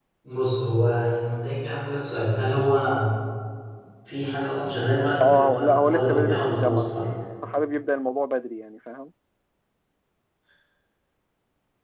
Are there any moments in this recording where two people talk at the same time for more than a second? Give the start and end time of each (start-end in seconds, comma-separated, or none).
4.6-6.9